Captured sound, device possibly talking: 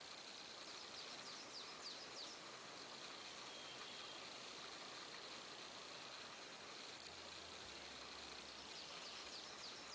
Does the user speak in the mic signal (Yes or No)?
No